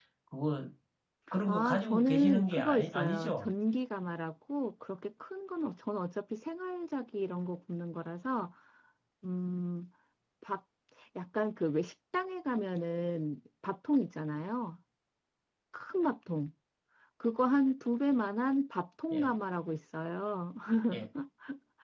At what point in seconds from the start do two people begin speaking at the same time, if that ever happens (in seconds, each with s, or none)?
1.5 s